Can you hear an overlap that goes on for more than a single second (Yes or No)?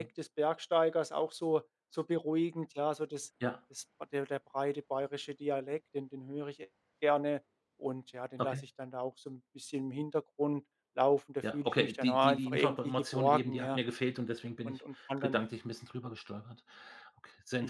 Yes